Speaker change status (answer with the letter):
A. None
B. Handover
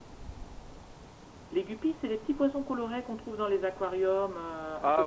B